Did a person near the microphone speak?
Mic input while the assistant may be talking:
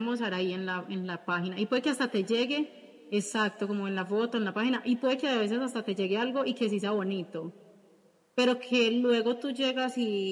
No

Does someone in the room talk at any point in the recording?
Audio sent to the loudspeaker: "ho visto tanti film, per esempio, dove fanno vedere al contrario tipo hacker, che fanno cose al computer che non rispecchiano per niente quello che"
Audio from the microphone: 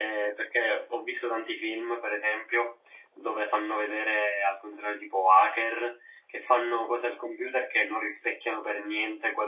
No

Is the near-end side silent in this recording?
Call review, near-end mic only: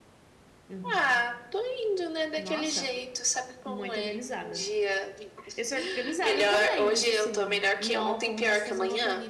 No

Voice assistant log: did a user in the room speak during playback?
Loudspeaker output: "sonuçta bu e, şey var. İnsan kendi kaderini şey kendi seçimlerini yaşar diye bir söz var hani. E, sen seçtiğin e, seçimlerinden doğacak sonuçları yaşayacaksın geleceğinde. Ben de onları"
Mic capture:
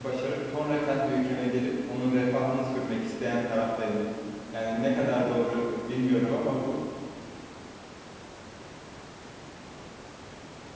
Yes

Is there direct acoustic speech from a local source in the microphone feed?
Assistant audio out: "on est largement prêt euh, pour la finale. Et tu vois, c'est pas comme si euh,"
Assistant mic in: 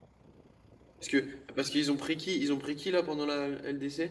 Yes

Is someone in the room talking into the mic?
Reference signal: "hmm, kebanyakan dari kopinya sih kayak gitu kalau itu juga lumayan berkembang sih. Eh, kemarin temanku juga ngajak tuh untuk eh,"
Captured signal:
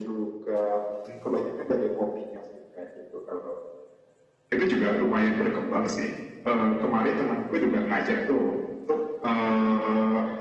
No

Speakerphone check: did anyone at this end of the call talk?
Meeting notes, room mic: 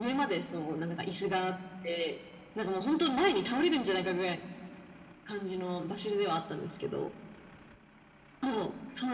No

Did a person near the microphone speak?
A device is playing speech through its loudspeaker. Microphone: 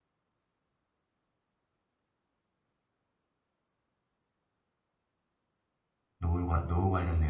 Yes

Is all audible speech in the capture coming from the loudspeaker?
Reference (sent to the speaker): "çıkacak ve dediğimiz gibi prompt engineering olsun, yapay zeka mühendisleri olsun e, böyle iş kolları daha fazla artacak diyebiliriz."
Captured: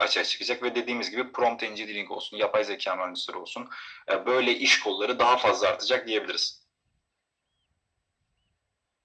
Yes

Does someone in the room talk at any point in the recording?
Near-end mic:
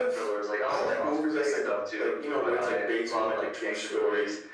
No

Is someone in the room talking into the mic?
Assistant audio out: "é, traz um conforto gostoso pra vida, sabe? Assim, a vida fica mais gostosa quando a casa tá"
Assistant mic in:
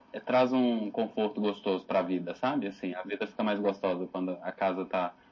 No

